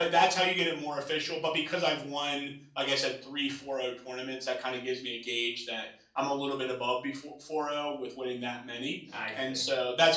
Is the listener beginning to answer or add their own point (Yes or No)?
No